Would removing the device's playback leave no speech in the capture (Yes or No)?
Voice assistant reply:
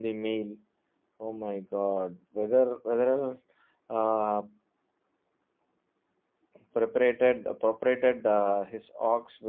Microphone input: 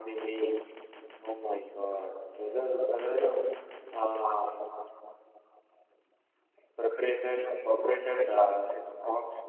Yes